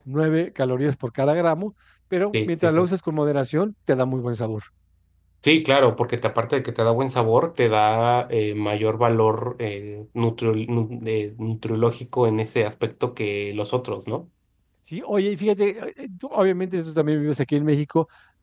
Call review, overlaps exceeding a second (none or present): none